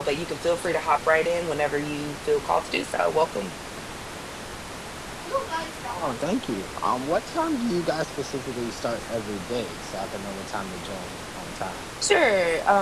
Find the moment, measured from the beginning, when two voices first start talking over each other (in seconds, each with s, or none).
none